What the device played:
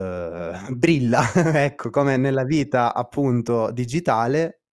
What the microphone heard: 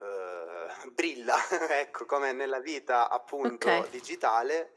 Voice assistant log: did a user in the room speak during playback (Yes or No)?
Yes